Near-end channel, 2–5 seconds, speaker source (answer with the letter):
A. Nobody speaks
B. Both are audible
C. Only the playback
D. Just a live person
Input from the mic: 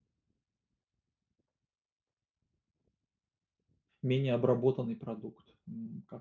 D